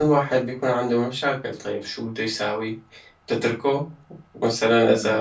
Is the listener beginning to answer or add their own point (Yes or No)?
No